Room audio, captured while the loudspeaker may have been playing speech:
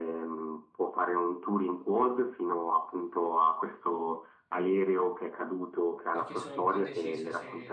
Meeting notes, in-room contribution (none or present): present